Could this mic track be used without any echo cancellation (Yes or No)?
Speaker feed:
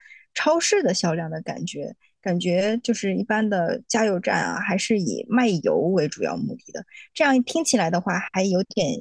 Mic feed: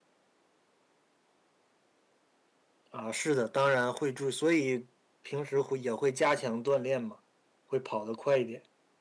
Yes